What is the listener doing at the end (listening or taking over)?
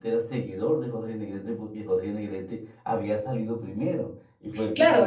taking over